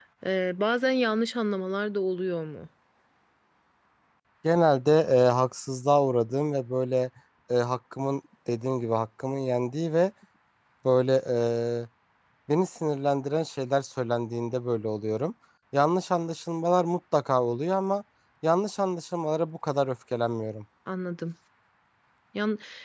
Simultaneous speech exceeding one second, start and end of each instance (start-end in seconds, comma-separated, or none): none